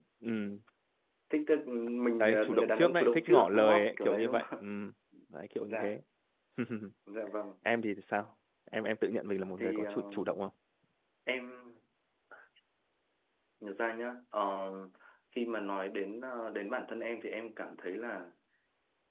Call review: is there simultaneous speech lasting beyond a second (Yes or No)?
Yes